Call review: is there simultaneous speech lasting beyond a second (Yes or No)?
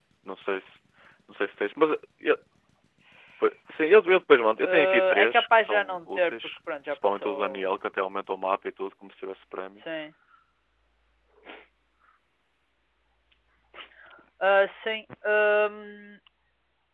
Yes